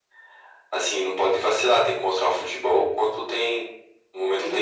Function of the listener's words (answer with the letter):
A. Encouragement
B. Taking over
B